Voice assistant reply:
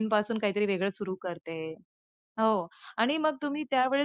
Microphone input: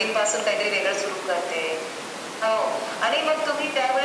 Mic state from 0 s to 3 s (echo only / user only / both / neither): echo only